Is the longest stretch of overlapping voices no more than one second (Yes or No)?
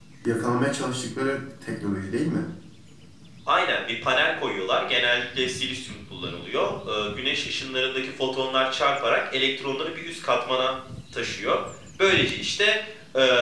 Yes